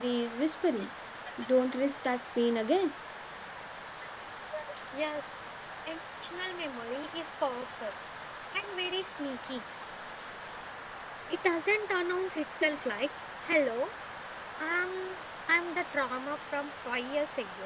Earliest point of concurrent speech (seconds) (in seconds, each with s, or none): none